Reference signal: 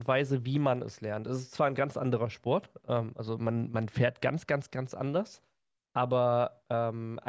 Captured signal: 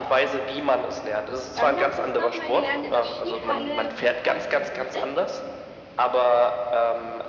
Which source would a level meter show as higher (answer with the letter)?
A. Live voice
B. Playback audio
B